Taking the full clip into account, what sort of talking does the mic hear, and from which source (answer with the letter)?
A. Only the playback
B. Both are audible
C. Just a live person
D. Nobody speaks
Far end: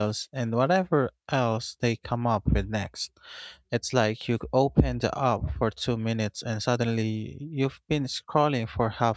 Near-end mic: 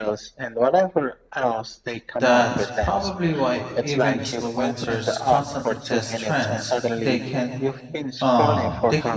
B